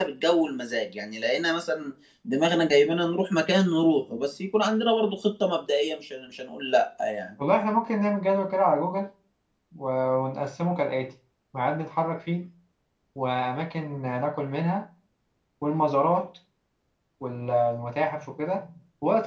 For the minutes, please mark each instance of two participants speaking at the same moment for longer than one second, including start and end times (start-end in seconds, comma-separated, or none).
none